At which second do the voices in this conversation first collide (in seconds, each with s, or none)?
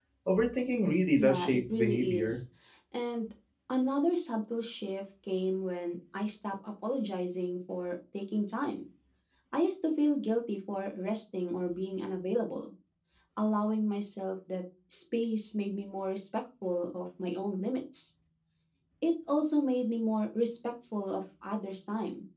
1.2 s